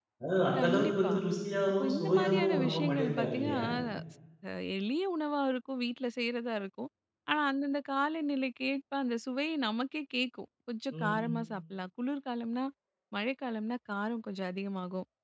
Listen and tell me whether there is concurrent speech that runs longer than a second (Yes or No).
Yes